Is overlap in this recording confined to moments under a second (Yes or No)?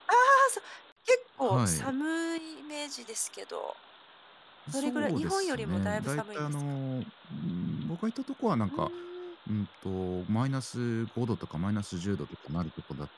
No